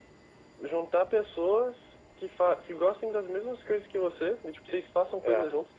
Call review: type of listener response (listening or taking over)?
listening